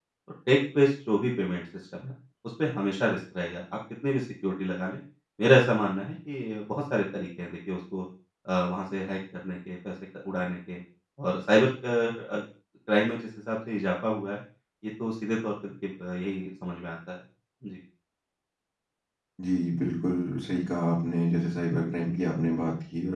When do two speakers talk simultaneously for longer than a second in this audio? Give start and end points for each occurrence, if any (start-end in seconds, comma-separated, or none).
none